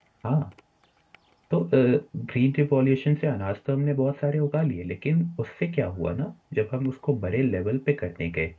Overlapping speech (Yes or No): No